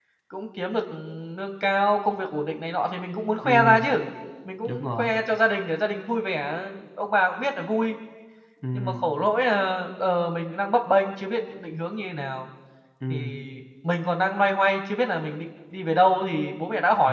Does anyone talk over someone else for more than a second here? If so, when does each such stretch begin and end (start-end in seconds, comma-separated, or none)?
none